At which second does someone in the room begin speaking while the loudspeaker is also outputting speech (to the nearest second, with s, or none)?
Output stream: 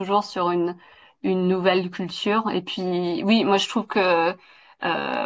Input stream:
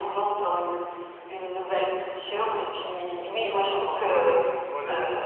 2 s